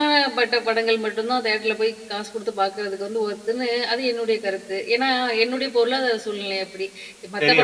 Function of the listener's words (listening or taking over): listening